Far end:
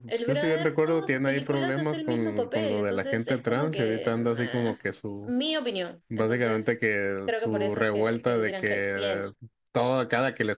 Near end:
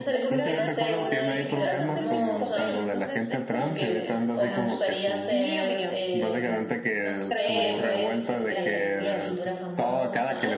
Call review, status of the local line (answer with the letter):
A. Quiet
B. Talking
B